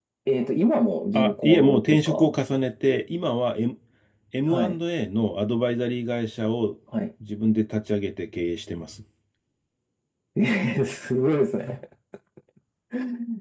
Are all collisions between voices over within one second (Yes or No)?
No